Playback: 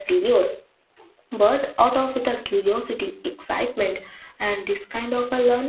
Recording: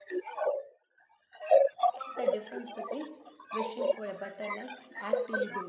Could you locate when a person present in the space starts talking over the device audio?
2 s

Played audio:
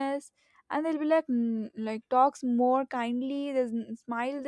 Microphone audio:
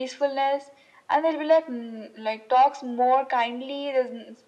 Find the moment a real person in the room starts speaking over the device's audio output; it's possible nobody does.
none

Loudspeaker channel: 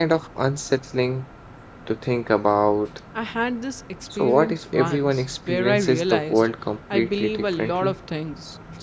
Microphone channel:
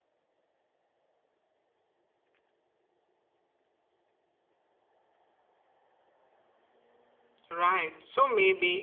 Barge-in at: 7 s

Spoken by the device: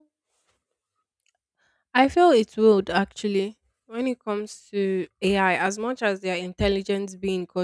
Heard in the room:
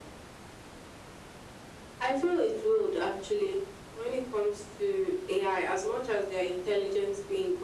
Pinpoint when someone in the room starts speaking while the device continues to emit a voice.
none

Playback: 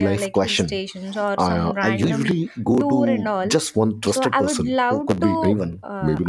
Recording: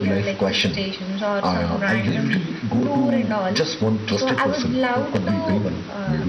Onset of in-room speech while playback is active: none

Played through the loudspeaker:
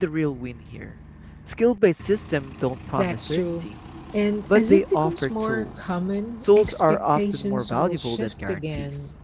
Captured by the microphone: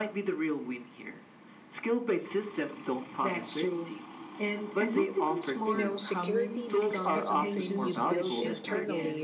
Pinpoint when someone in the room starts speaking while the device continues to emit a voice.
6 s

